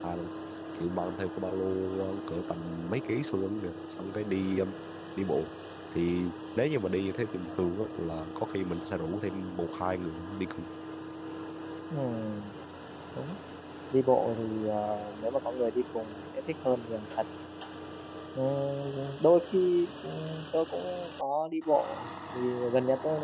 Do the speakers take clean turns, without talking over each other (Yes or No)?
Yes